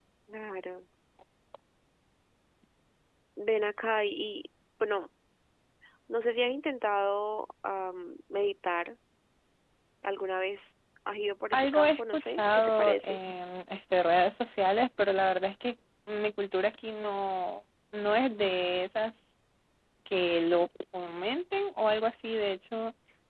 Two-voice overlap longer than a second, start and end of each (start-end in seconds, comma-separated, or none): 11.5-13.2